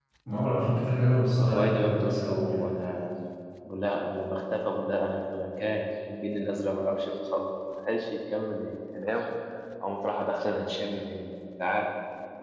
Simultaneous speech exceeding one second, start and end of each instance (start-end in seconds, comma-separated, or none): 1.4-2.7